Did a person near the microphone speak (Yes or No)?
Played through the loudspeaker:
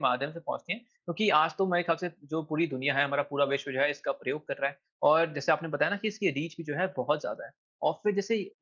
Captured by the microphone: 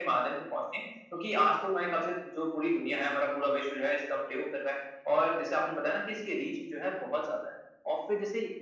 No